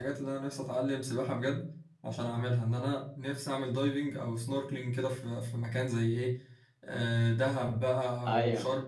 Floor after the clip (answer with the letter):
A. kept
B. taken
A